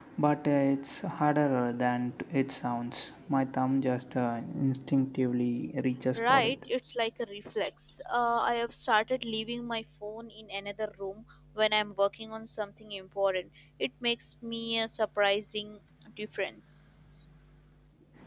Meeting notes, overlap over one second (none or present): none